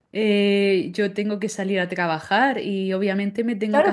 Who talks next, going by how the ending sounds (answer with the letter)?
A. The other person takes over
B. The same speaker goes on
A